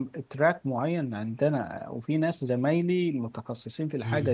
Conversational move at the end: listening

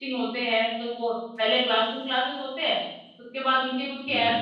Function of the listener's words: listening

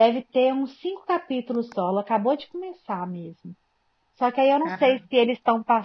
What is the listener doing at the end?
listening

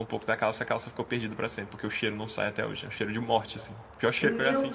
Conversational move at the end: taking over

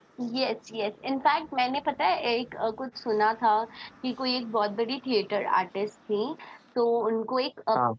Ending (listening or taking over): listening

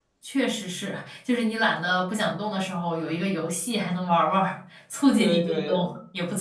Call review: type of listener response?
taking over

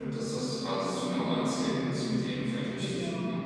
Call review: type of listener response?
taking over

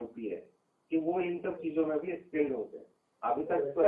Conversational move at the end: listening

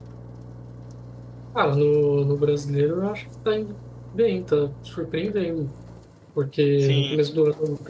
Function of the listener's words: listening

